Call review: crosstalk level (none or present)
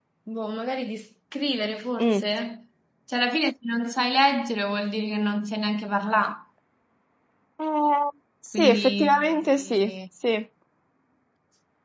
present